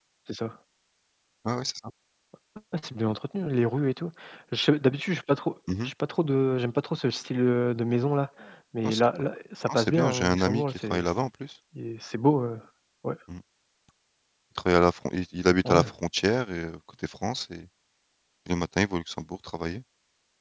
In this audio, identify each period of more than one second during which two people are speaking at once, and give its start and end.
9.7-11.0

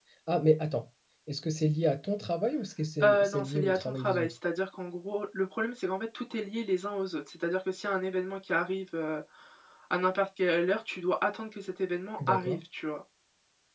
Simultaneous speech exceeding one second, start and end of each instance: 3.0-4.3

